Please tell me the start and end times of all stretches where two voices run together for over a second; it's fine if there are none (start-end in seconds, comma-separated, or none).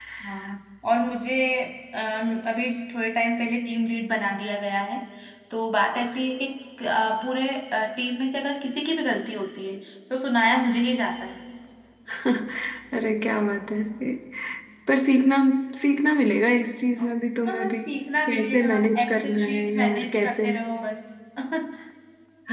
18.3-20.5